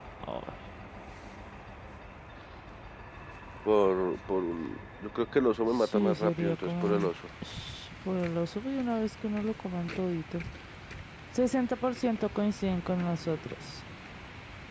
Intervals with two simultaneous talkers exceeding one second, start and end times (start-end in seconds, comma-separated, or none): 5.7-7.1